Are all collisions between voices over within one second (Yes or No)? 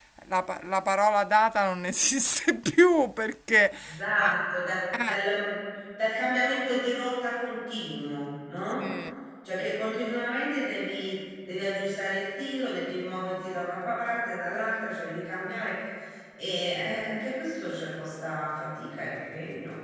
Yes